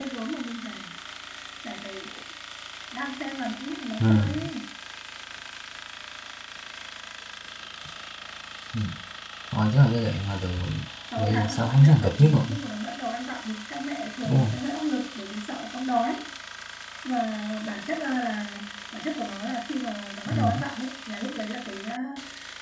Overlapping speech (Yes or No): Yes